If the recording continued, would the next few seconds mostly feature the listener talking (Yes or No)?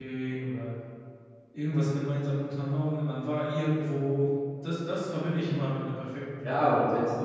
Yes